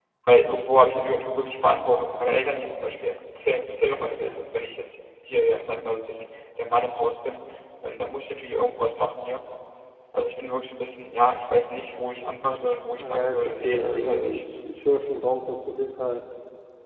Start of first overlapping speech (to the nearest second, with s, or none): 13 s